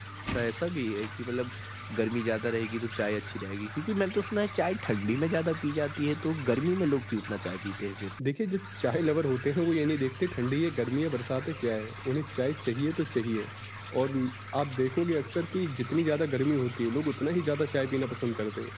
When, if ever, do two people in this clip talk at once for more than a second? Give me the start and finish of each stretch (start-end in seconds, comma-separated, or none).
none